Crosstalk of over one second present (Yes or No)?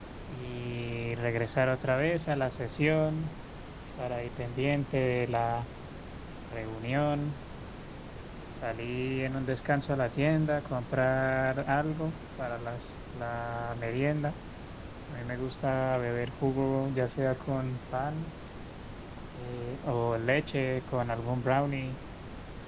No